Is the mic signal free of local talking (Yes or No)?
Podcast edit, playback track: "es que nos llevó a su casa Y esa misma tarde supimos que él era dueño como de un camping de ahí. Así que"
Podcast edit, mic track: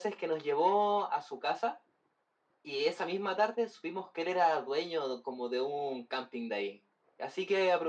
Yes